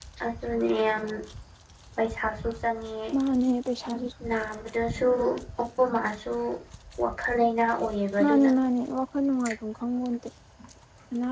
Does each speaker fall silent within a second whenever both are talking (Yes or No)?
Yes